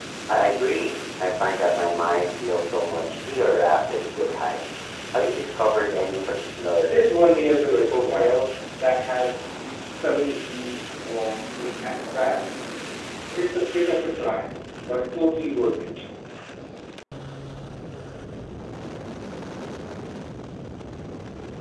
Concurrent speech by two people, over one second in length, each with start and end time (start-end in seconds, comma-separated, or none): 6.9-8.3